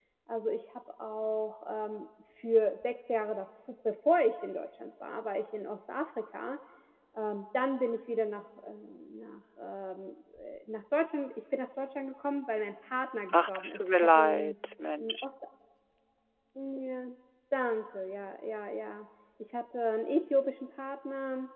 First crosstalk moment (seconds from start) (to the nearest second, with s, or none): 13 s